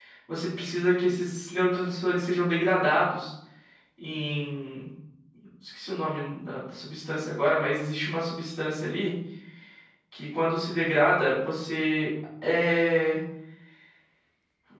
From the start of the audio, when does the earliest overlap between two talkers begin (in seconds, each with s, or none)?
none